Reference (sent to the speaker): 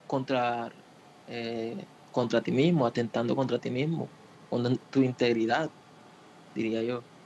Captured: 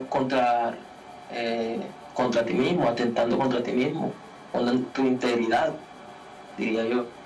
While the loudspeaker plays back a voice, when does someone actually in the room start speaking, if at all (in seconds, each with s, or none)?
none